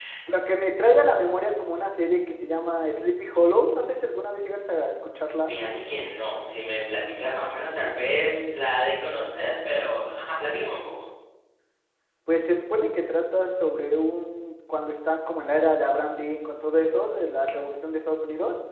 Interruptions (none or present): none